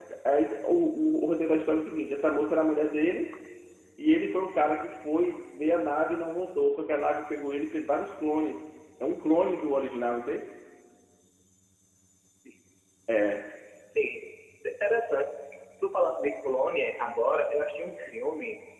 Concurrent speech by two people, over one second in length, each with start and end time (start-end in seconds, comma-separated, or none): none